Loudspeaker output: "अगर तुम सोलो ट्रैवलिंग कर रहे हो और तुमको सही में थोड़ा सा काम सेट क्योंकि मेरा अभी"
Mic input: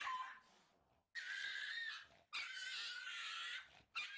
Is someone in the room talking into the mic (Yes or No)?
No